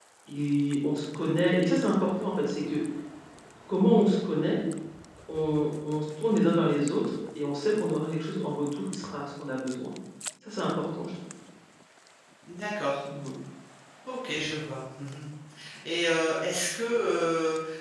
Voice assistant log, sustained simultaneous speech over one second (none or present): none